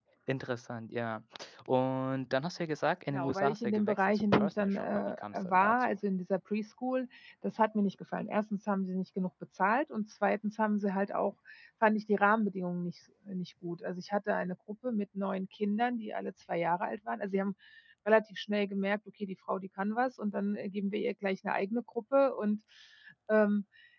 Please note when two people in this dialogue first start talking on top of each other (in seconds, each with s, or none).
3.1 s